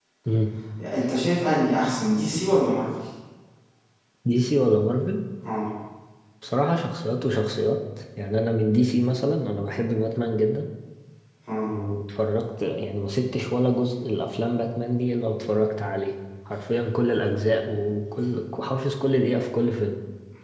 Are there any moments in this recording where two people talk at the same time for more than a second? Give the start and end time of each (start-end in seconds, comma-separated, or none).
none